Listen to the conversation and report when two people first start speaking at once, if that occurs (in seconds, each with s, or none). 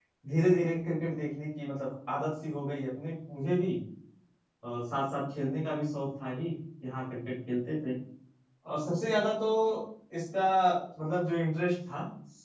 none